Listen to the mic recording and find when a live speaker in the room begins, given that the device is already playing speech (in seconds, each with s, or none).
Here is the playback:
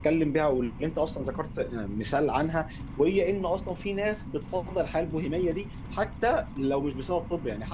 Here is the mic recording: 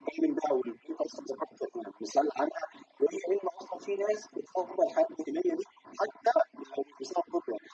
none